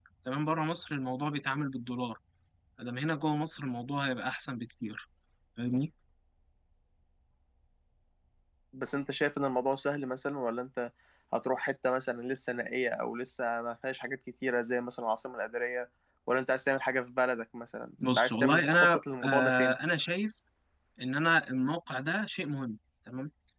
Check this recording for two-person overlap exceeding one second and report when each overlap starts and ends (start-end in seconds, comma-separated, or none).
18.2-19.8